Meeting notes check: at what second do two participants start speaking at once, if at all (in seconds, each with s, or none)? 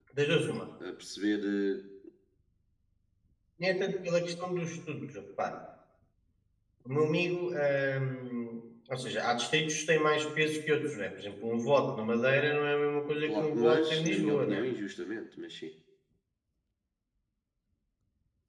13.2 s